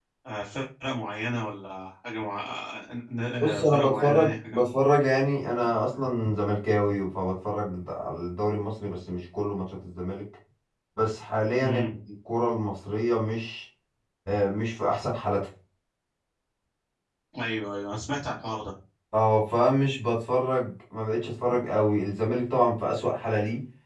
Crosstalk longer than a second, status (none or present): present